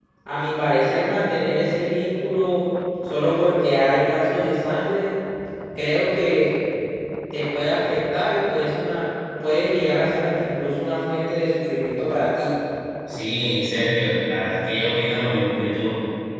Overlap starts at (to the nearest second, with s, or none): none